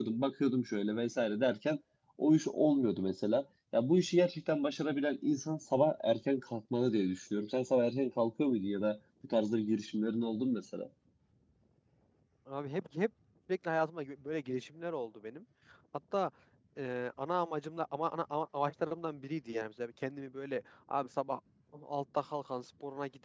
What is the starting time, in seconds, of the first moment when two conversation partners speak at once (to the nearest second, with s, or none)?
none